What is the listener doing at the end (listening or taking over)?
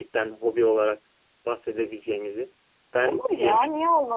taking over